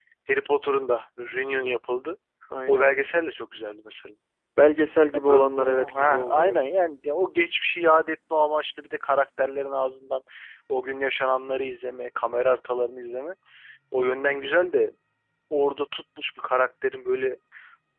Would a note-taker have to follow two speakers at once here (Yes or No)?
Yes